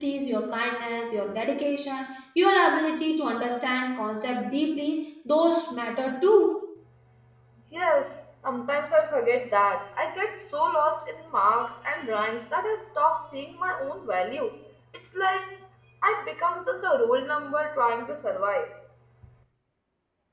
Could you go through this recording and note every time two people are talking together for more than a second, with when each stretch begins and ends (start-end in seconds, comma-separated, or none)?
none